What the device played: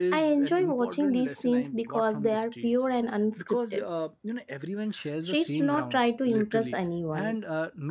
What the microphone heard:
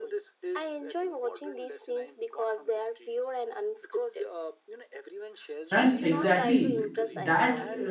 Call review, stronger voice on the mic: user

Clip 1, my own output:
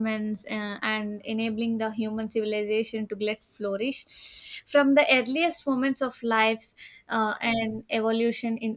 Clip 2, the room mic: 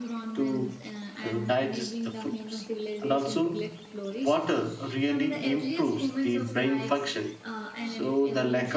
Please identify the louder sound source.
user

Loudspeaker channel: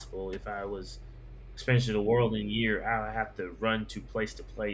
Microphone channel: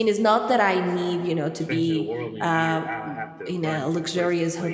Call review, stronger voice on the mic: user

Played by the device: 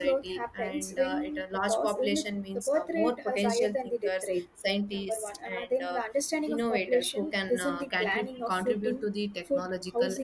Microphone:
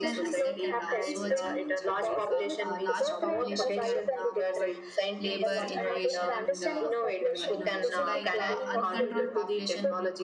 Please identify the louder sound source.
echo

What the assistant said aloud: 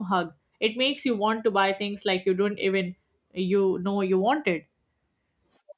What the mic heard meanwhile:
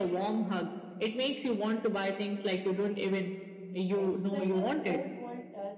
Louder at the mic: echo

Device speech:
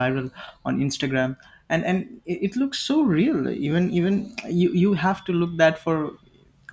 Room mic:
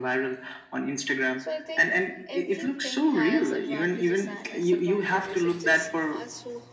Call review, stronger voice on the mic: echo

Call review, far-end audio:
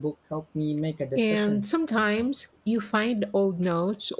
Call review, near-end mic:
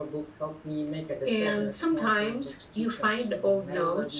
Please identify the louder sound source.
echo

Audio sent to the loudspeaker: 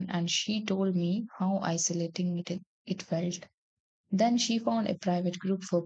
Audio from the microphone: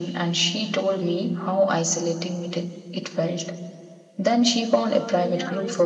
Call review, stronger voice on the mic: echo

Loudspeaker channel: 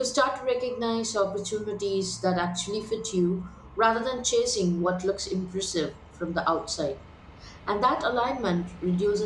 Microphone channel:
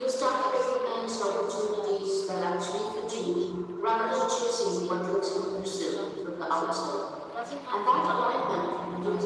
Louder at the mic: echo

